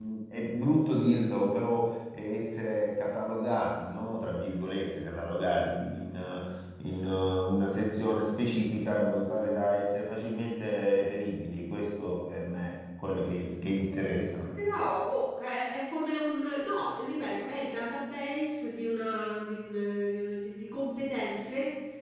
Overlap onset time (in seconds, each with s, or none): none